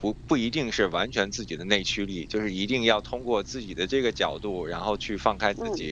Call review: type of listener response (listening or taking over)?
listening